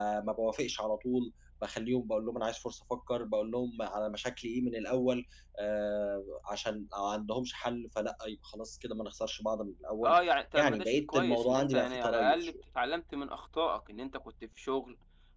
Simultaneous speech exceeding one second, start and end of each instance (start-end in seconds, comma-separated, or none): 10.6-12.5